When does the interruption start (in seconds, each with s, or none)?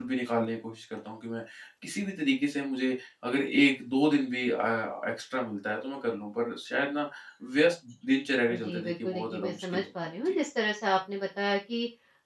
8.5 s